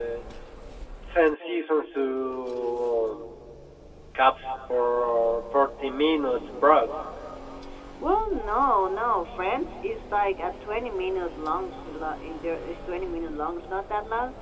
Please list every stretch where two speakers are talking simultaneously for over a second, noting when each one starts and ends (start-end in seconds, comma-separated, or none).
none